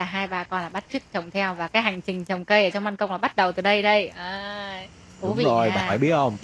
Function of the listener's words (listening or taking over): taking over